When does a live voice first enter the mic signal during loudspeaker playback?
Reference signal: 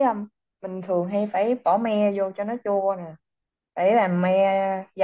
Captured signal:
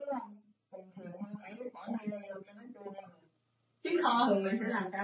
4 s

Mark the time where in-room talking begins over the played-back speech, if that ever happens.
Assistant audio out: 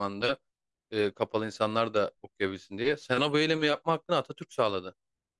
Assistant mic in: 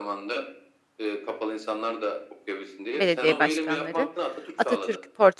3 s

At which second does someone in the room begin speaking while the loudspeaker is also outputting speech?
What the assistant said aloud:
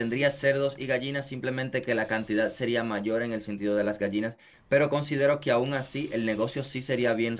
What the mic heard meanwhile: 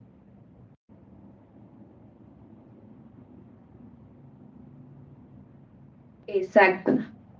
6 s

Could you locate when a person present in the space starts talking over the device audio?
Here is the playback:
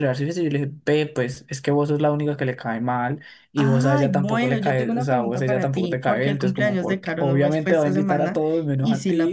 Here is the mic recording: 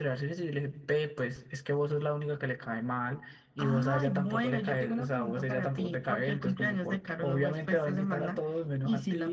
none

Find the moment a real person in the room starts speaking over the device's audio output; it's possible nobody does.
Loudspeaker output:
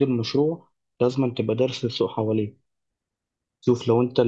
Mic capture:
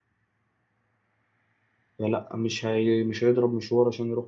2 s

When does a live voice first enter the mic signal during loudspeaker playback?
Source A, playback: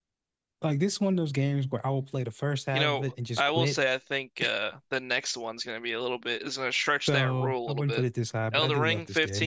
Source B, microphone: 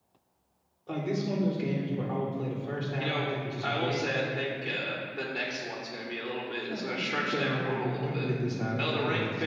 7 s

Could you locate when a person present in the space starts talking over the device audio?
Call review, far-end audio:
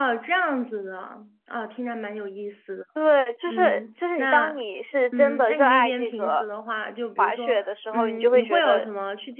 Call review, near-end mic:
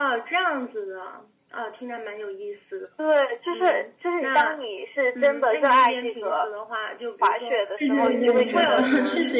8 s

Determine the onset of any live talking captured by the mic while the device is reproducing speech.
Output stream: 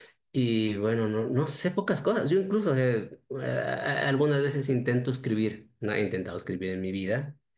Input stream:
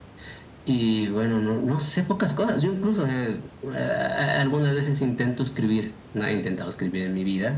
none

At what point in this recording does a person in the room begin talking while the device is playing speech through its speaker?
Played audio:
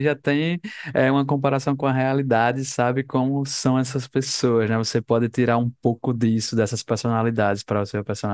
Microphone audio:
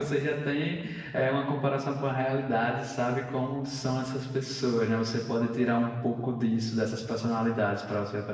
none

